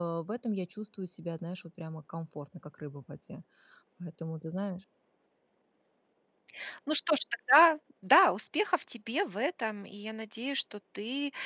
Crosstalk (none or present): none